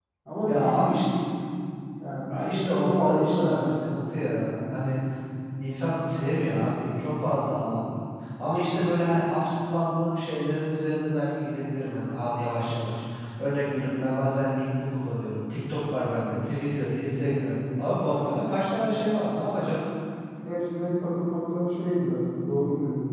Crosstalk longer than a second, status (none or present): present